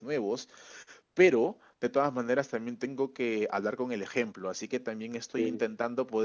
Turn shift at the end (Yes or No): No